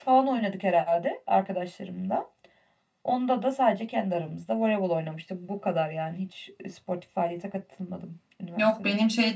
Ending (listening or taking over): taking over